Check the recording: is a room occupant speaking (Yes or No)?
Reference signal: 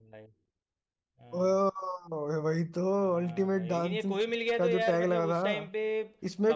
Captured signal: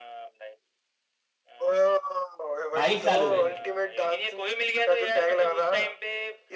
Yes